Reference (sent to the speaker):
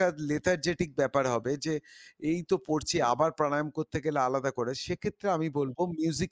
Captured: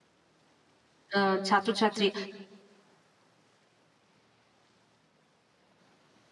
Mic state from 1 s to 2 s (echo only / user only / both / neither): user only